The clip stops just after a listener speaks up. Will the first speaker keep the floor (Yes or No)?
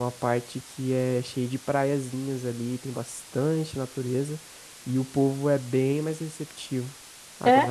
Yes